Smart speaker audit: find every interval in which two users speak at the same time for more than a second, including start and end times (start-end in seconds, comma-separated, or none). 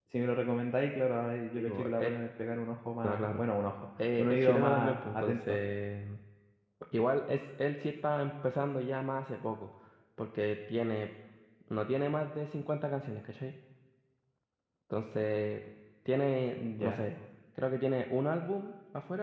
4.2-5.6